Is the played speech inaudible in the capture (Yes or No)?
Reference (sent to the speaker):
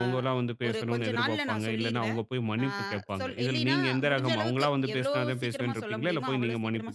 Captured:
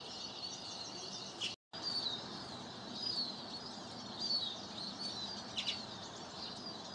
Yes